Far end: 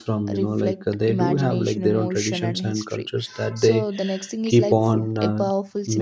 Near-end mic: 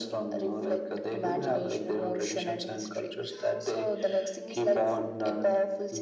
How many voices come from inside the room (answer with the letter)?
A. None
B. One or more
A